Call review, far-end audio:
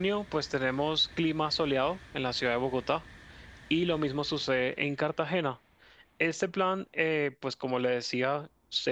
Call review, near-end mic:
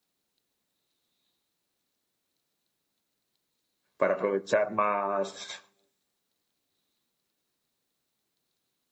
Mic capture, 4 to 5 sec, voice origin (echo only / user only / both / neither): user only